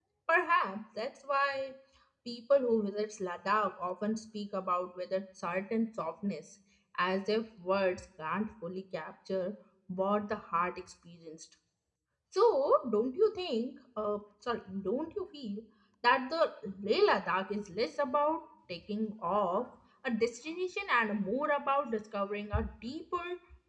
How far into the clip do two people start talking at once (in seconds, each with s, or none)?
none